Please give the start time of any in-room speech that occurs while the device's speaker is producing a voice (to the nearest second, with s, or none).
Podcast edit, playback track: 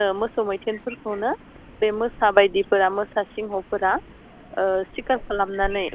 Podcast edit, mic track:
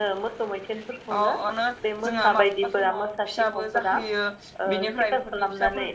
1 s